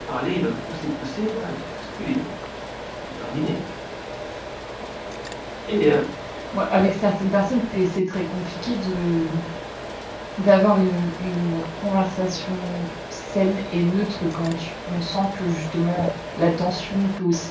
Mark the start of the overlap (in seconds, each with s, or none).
none